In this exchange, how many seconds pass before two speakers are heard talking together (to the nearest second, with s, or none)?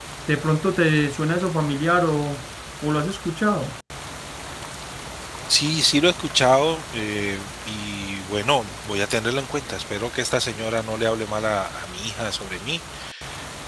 none